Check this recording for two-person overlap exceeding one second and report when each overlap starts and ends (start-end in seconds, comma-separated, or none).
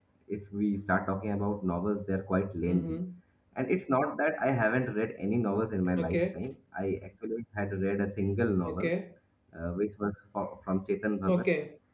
none